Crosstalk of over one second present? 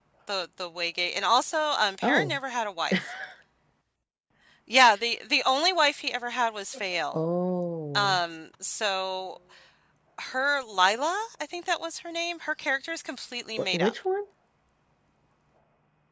No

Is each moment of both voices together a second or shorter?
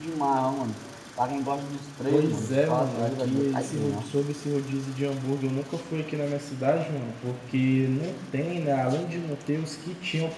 No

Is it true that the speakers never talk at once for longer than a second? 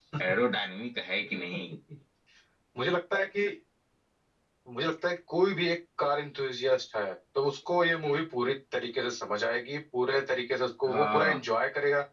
Yes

